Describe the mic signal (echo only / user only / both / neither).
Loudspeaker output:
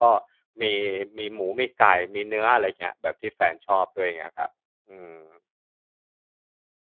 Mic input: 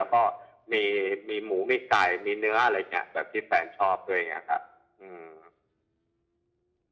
echo only